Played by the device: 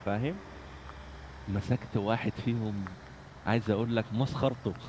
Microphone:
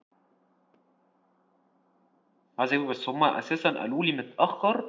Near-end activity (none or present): present